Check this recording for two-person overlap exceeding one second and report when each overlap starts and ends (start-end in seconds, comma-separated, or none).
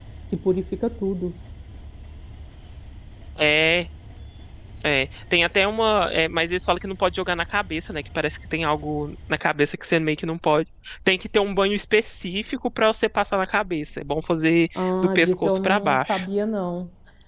14.8-16.2